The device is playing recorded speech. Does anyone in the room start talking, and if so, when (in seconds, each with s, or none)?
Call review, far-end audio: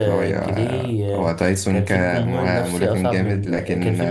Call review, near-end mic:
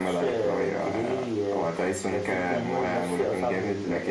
none